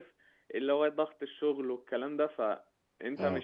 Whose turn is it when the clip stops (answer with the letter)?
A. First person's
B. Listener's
A